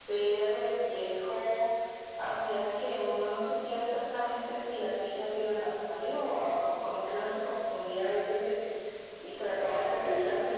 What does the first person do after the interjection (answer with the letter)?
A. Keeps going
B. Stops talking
A